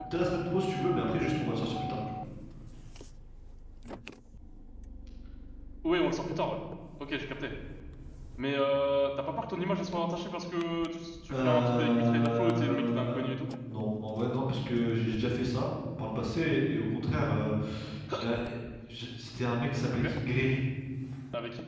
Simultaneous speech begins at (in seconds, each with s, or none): 11.3 s